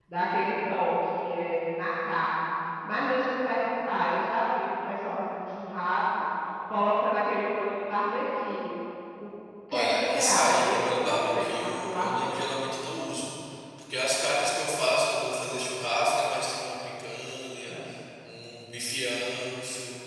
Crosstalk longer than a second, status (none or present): present